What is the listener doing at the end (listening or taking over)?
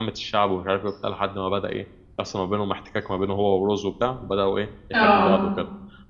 listening